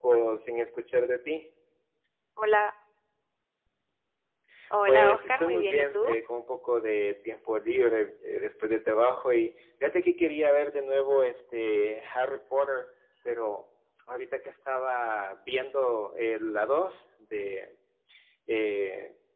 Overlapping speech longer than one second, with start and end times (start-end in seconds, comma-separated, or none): 4.9-6.2